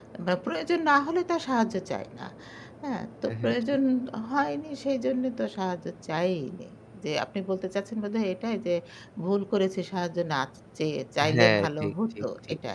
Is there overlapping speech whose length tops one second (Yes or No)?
Yes